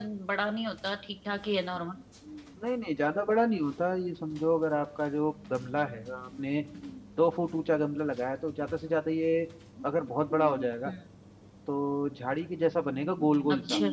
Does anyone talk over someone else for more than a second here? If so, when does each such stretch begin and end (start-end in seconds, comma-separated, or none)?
none